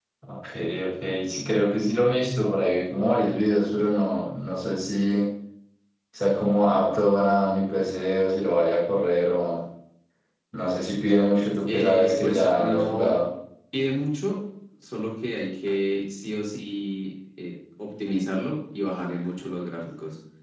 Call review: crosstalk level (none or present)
present